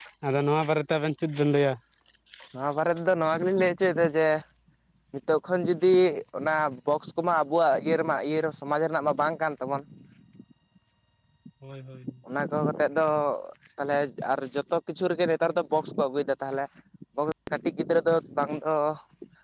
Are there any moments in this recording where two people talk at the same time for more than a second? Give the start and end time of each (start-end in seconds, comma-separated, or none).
none